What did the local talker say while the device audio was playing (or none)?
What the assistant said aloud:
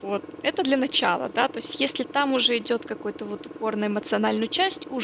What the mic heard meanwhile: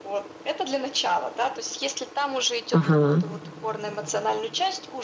Ага.